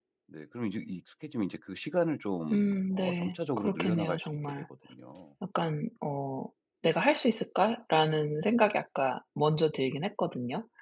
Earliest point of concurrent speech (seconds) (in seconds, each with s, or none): 2.5 s